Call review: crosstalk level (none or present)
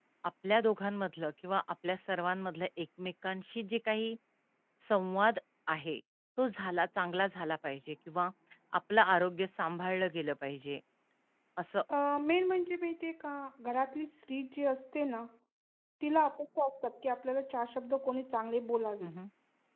none